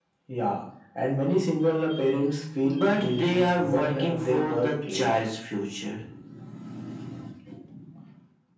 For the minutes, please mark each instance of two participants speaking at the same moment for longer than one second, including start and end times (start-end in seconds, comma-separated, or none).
2.6-5.1